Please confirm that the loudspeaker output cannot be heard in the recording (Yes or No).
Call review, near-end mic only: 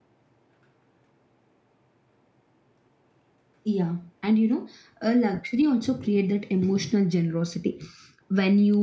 Yes